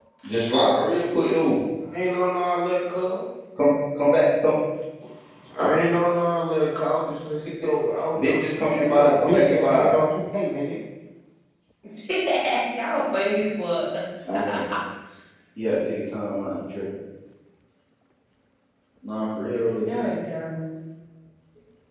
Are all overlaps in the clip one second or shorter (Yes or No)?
No